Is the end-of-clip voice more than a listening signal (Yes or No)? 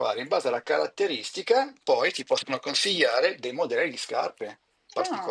Yes